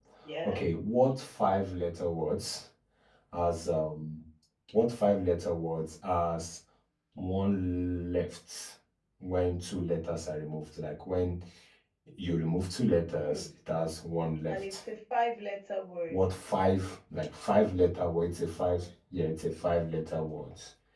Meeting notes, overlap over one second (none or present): none